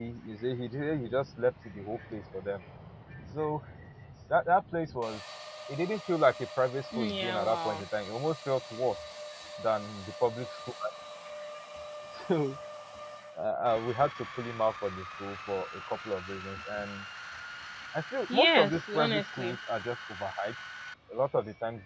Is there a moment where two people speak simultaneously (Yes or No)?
Yes